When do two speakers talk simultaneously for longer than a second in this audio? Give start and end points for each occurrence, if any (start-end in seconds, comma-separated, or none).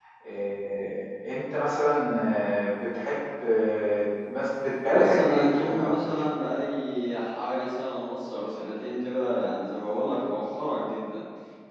4.9-6.3